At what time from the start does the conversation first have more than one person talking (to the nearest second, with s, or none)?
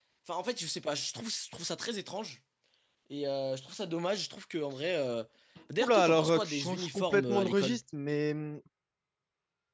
6 s